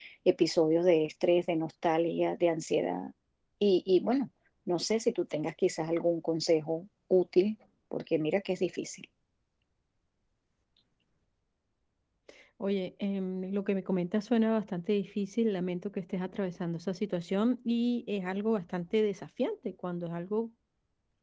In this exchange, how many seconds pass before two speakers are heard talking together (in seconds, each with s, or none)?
none